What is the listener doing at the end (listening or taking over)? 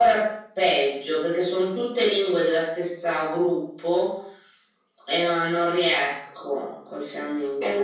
taking over